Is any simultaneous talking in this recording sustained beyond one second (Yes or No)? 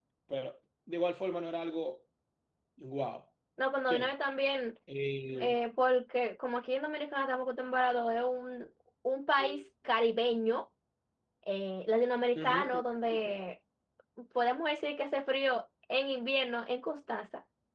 No